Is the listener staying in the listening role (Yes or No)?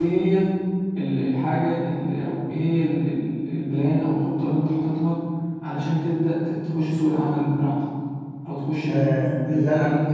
No